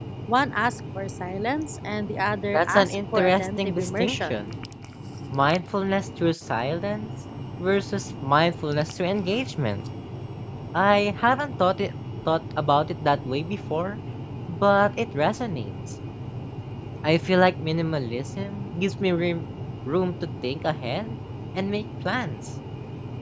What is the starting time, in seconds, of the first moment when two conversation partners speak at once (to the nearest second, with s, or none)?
3 s